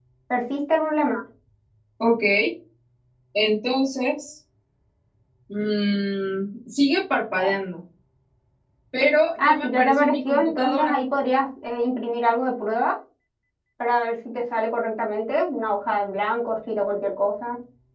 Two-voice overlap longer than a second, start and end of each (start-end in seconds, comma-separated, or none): 9.4-11.0